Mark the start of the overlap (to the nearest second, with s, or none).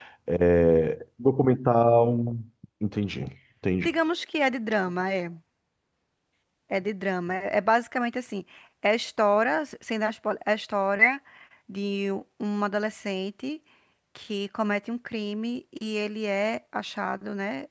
none